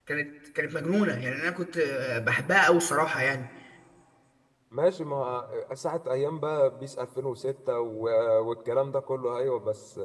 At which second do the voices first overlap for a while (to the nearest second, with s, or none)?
none